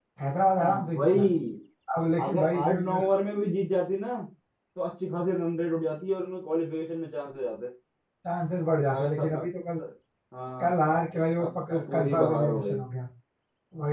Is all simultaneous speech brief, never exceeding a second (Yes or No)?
No